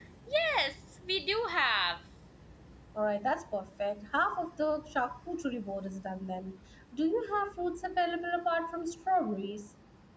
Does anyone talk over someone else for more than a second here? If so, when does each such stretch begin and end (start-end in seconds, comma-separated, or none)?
none